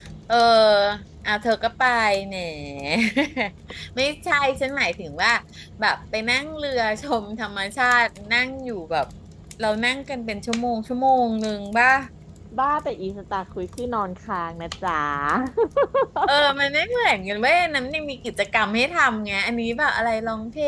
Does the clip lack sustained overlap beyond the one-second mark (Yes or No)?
Yes